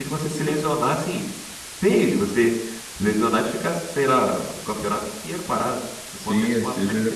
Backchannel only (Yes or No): No